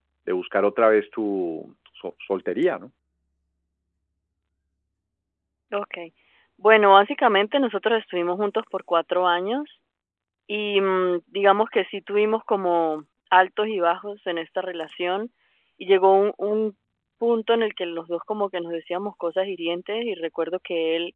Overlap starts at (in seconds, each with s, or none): none